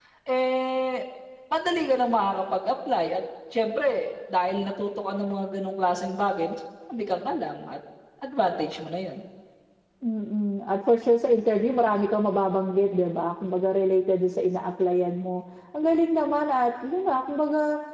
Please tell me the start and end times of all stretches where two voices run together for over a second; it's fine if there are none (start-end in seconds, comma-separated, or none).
none